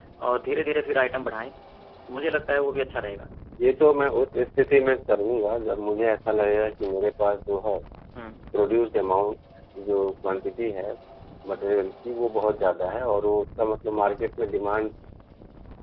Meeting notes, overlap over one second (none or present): none